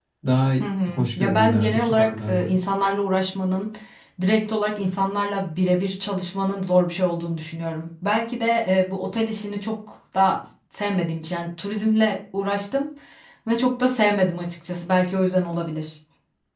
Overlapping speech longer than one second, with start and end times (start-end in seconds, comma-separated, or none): 1.0-2.6